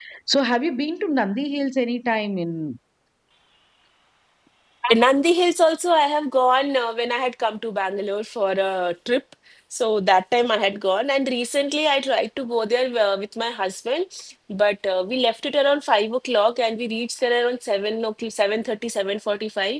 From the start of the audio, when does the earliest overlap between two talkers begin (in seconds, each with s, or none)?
none